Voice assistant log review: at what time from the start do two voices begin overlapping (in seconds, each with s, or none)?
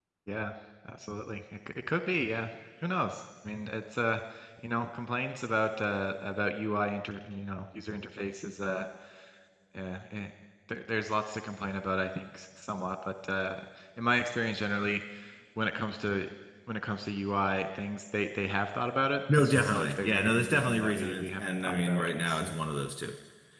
19.3 s